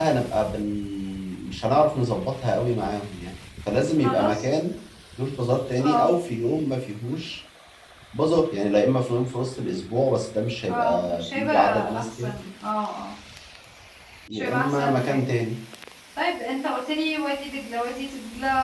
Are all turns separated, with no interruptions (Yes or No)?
No